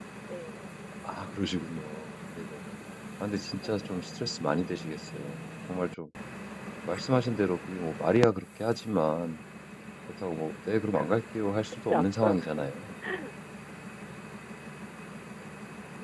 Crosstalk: present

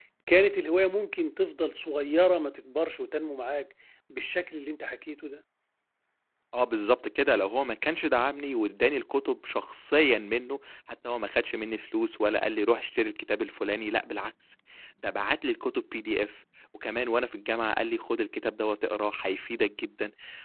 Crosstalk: none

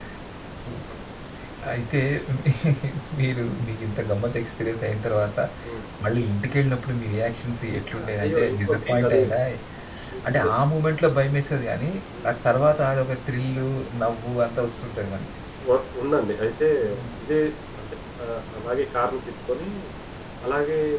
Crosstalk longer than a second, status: present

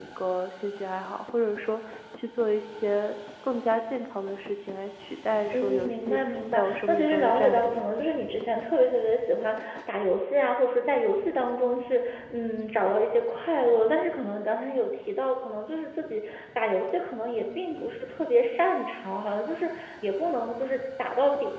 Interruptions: present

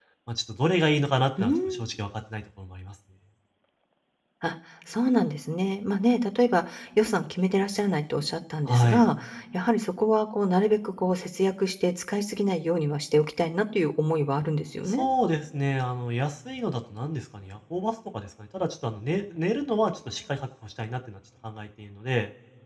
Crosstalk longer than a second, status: none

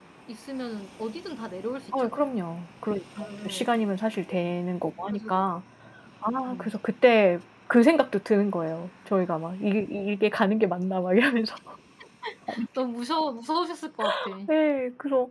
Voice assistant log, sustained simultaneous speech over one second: none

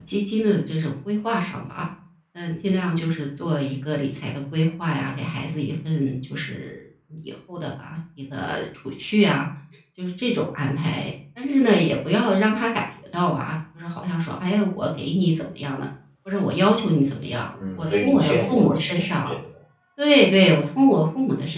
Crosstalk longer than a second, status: present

